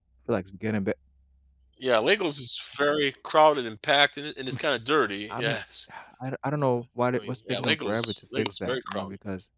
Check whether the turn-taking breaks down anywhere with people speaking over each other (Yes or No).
Yes